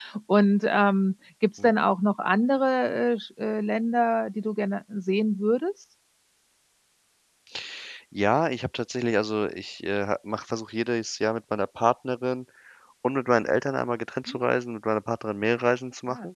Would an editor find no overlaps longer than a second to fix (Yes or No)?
Yes